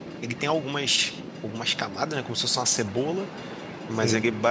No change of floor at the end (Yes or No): Yes